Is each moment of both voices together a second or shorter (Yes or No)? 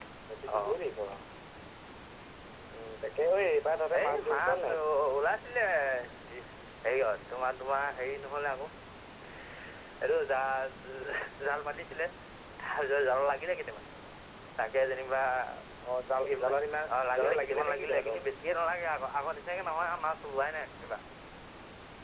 No